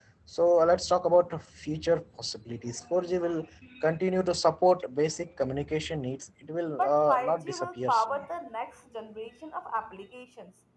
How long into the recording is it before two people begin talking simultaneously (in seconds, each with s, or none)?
6.8 s